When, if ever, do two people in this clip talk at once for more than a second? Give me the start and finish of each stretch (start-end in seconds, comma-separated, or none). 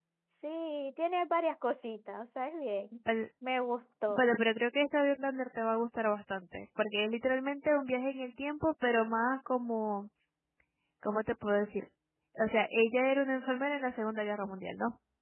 none